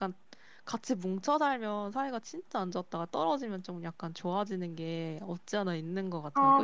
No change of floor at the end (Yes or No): No